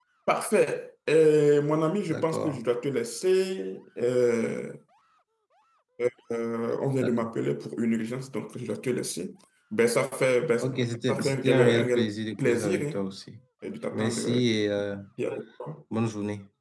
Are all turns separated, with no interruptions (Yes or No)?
No